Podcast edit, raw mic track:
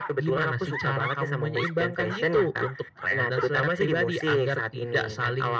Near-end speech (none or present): none